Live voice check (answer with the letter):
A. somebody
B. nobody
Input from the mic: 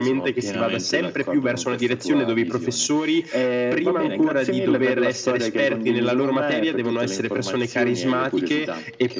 B